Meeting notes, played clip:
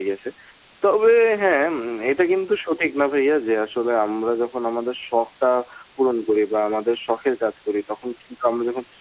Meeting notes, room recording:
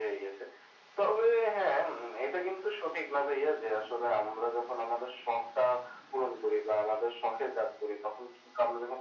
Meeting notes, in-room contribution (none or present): none